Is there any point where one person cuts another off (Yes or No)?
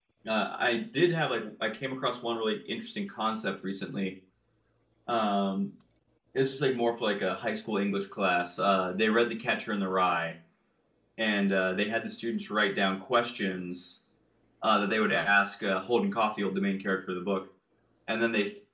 No